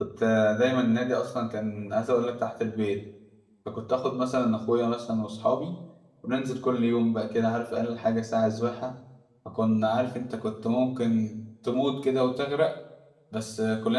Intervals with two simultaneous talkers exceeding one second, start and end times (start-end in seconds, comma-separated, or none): none